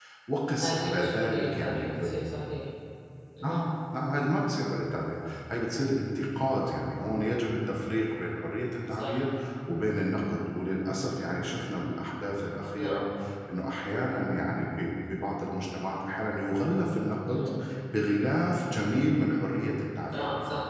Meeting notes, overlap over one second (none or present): present